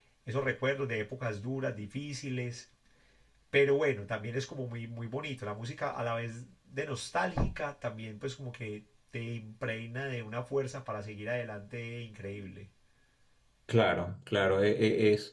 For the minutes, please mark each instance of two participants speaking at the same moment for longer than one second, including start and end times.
none

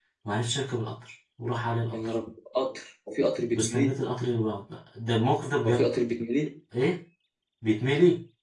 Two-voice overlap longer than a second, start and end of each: none

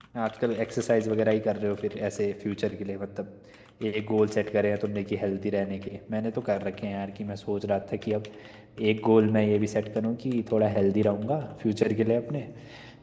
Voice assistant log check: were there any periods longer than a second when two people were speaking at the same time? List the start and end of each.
none

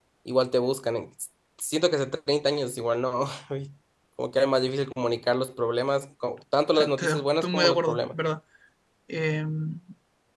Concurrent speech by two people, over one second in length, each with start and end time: 6.8-8.0

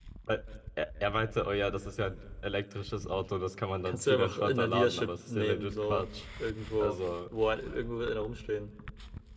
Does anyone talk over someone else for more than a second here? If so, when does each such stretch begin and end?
3.9-6.1

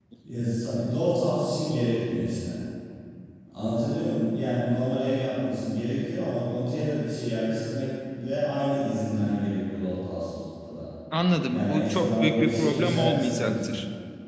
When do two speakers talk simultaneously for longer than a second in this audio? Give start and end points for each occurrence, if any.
11.5-13.7

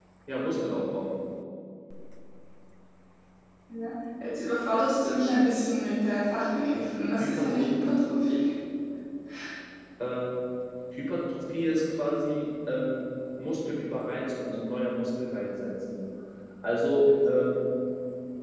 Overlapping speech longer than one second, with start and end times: none

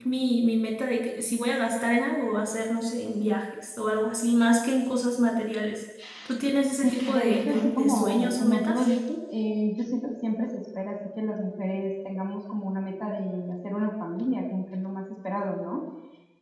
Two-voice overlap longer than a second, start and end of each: 6.8-8.9

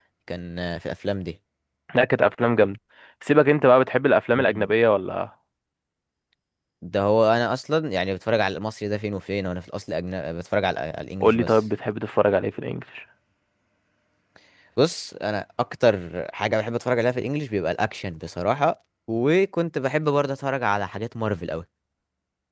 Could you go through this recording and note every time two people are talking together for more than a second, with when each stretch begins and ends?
none

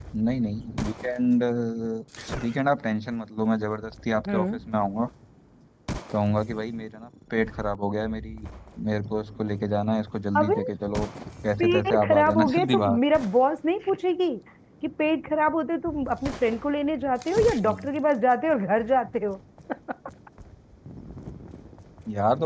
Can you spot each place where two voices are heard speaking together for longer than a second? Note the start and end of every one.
11.6-13.0

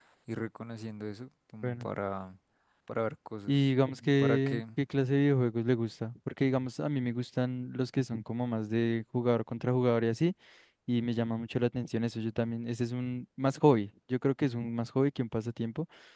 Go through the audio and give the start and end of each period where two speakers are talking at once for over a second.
none

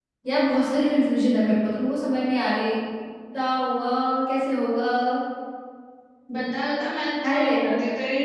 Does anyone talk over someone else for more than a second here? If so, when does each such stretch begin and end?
none

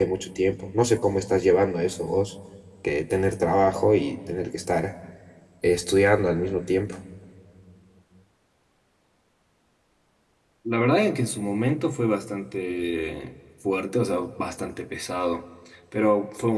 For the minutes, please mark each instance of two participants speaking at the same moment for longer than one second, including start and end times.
none

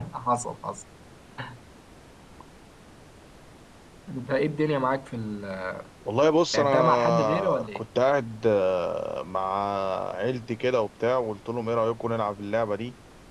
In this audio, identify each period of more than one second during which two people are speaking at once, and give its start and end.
6.5-7.8

